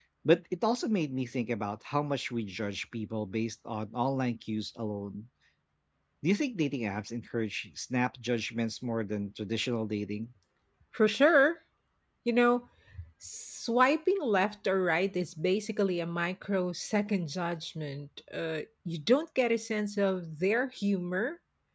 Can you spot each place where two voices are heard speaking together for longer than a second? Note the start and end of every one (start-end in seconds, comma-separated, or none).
none